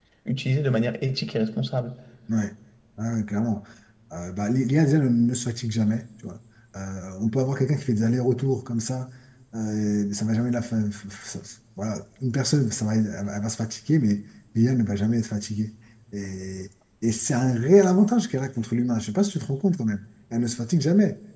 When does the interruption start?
none

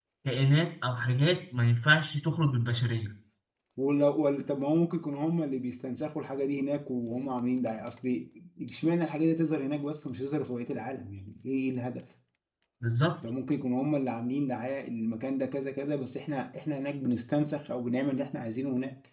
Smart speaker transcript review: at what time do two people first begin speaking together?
none

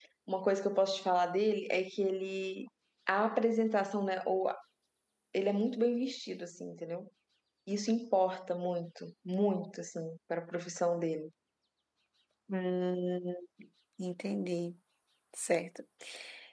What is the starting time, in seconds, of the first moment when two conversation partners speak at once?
none

